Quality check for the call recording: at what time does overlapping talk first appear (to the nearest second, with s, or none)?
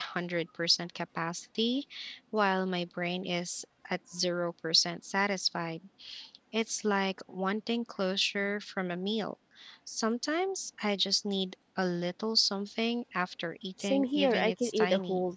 14 s